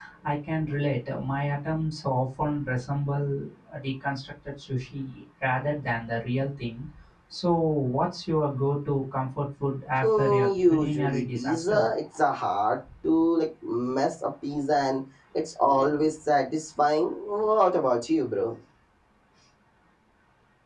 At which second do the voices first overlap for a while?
10 s

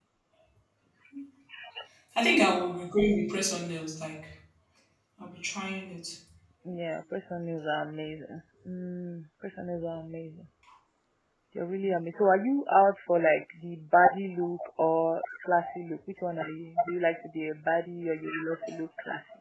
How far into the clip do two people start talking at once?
none

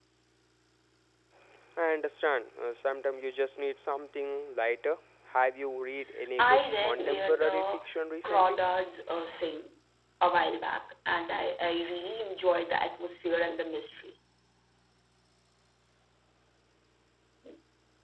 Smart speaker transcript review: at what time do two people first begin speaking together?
6 s

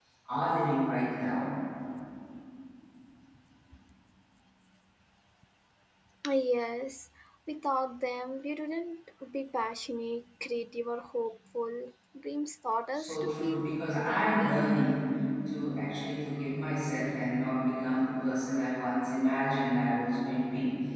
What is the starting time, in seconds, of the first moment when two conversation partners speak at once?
13 s

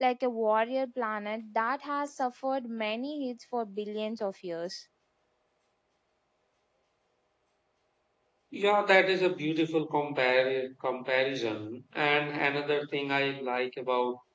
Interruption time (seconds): none

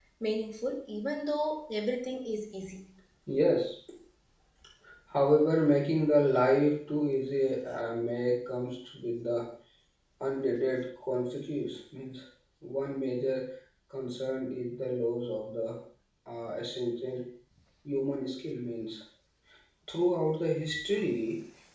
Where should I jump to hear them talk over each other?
none

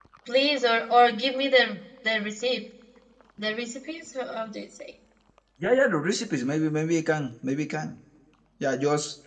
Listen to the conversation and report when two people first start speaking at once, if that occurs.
none

